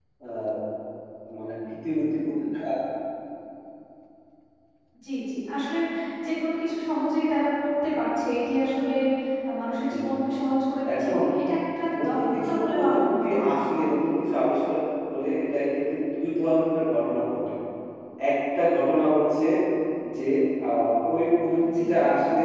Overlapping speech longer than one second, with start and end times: 12.0-13.5

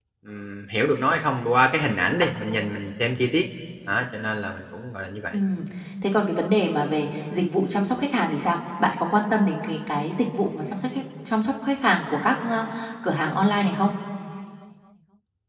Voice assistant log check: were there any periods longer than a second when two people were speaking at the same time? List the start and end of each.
none

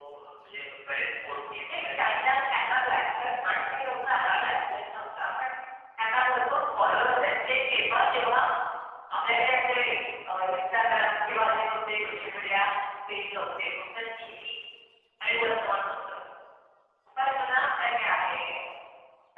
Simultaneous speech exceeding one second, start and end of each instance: 1.7-3.0

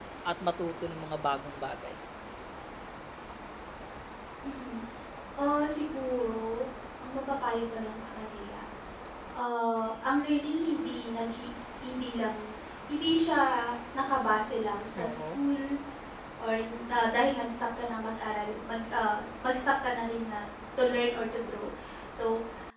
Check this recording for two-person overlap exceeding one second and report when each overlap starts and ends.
none

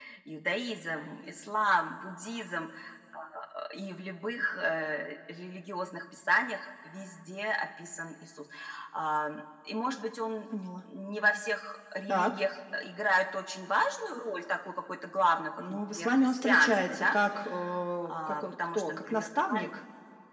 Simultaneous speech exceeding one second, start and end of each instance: 15.7-17.1, 18.0-19.7

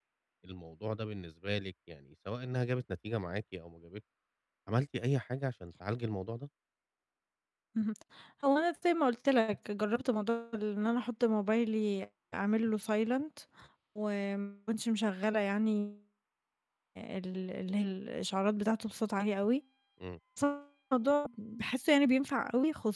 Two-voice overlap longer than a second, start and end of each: none

